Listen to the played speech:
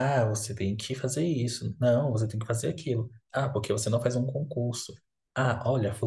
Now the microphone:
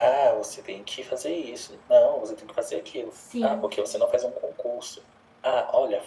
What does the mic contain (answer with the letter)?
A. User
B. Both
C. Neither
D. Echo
B